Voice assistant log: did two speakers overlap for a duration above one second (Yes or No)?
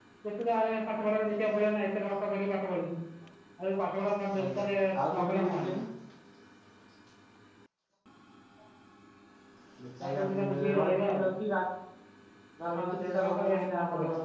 Yes